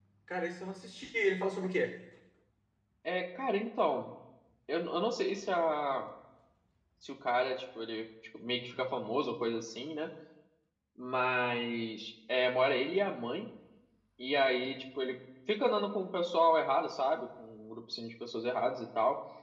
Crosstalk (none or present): none